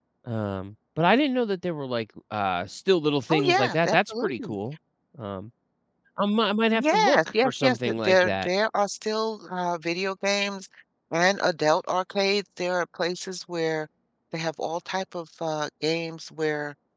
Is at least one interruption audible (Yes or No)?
Yes